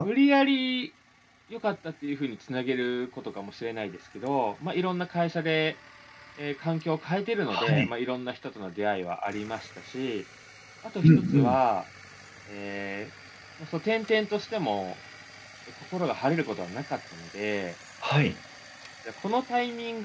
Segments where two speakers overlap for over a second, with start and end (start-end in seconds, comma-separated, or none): none